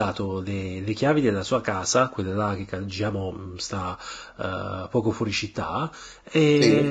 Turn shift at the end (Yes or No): No